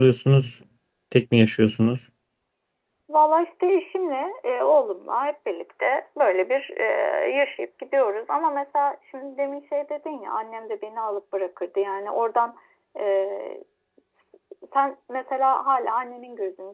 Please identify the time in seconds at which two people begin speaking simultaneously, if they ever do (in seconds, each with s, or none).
none